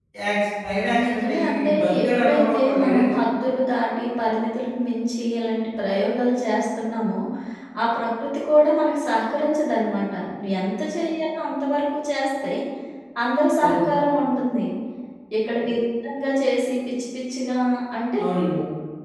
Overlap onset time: 1.1 s

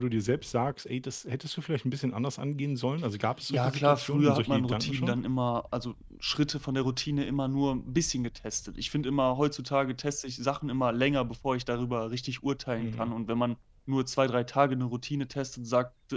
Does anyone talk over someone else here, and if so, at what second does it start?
3.5 s

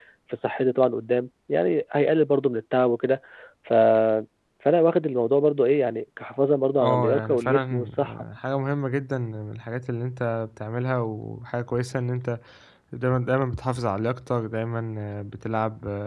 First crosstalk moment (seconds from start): 6.8 s

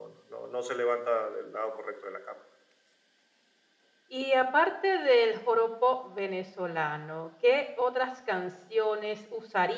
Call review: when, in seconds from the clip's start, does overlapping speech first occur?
none

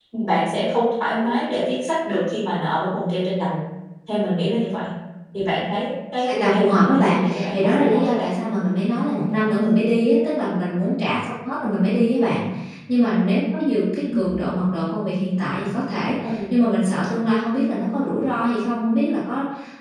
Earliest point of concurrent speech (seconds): 6.2 s

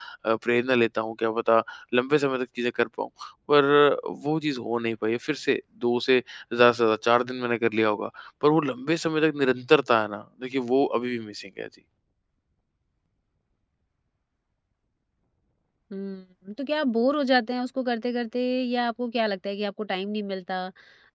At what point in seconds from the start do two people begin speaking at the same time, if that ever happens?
none

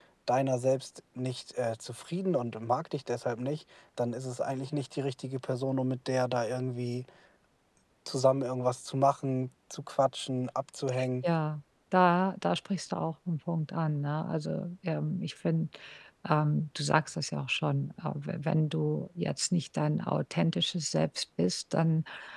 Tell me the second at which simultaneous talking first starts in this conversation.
none

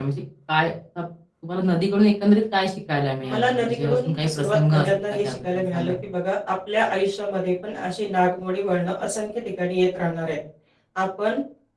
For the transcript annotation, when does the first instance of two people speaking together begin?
3.2 s

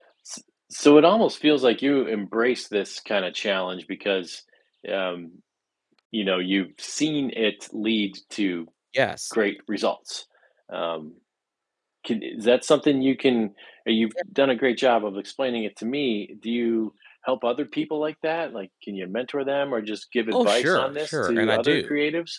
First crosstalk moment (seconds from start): 20.3 s

